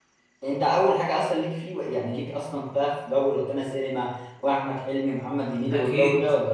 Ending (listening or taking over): taking over